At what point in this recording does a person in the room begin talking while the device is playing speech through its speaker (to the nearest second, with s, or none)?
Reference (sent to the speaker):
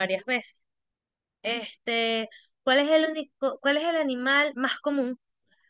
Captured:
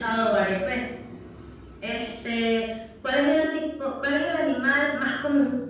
none